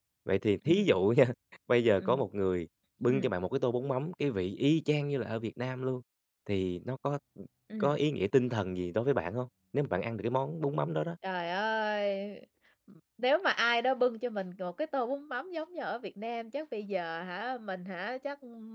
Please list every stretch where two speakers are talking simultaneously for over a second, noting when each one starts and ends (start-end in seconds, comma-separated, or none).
none